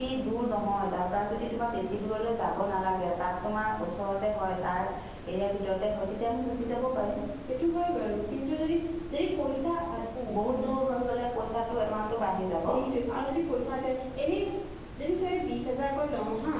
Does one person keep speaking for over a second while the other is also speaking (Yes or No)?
No